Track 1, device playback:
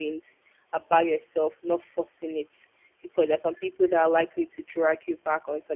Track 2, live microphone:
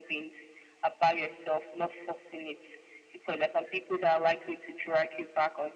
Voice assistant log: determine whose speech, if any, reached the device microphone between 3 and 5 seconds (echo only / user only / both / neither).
echo only